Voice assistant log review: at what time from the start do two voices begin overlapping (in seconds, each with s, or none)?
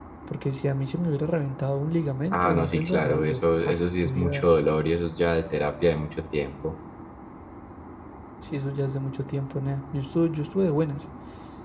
2.3 s